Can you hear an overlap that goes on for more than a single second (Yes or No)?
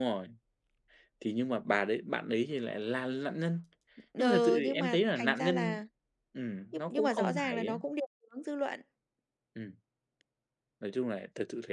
Yes